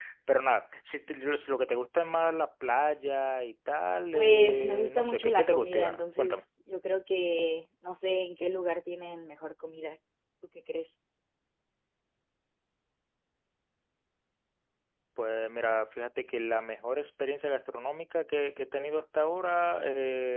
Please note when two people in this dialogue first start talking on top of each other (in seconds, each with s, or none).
4.1 s